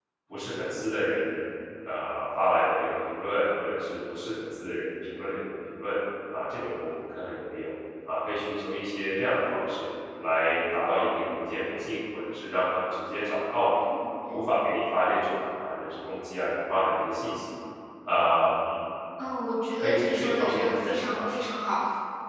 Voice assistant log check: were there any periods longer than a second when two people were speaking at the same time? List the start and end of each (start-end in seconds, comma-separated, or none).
19.8-21.2